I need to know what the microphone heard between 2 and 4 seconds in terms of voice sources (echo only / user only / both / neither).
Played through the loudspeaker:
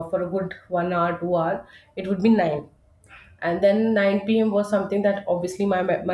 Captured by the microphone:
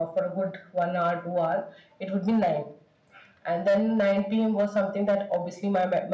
echo only